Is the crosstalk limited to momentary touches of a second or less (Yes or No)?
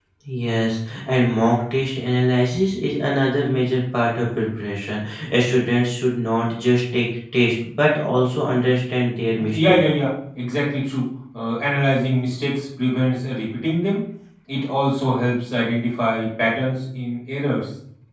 Yes